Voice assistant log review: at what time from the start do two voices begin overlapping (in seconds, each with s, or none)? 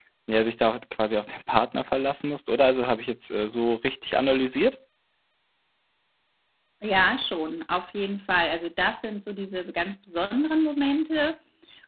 none